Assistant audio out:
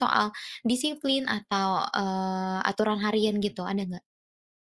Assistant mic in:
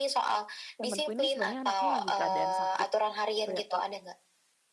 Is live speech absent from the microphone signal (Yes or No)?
No